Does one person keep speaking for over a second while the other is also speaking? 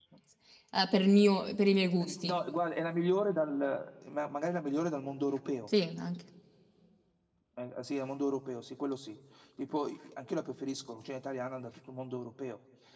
No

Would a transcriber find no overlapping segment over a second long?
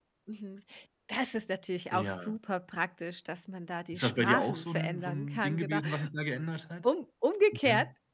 No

